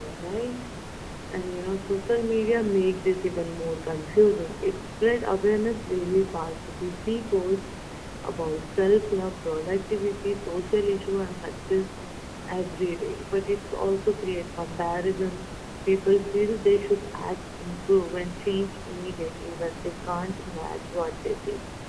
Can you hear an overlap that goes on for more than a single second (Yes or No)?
No